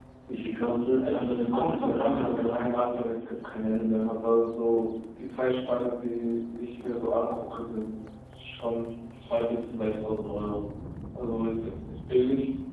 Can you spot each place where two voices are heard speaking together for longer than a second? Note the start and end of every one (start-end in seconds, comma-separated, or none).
1.0-2.6